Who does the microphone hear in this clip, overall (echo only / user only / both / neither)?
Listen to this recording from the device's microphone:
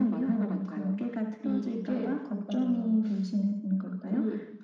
echo only